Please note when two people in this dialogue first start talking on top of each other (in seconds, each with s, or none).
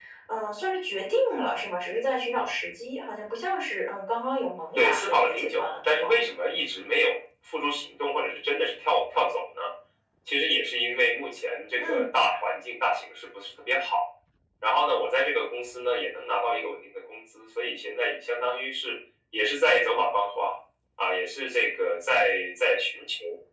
4.8 s